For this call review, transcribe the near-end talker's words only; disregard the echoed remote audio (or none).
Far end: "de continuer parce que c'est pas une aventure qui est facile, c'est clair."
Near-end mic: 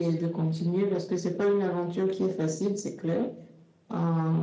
none